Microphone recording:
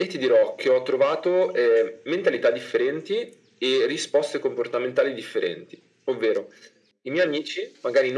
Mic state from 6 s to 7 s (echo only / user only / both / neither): echo only